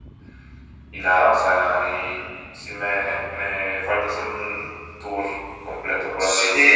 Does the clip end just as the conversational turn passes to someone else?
Yes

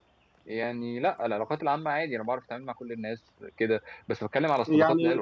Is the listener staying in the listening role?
Yes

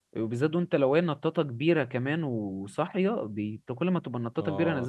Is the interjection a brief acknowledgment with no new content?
No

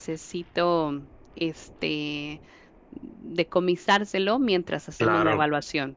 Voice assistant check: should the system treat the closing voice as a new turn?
No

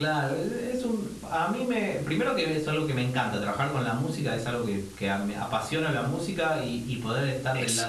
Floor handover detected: No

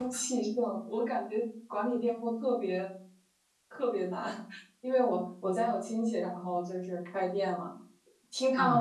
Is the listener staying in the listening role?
Yes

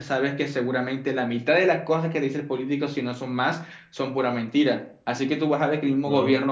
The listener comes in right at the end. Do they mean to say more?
No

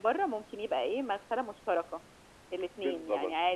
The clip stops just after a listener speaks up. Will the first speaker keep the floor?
Yes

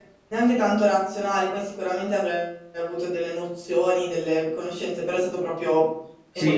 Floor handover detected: Yes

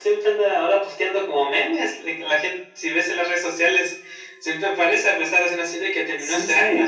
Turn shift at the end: Yes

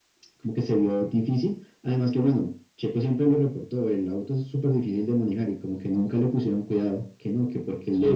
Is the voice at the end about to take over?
Yes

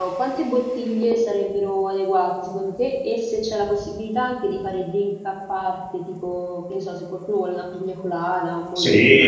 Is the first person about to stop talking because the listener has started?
Yes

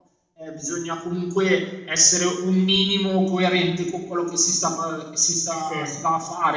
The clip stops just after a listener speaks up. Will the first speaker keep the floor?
Yes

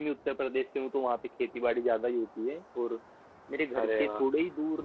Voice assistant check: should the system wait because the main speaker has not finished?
Yes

